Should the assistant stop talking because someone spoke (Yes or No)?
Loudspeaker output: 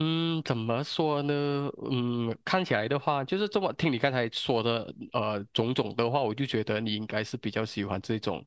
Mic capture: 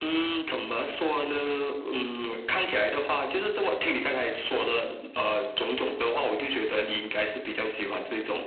No